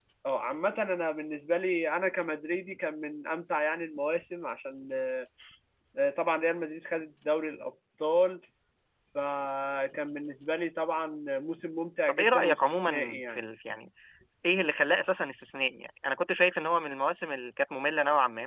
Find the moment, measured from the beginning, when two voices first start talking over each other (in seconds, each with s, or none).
12.1 s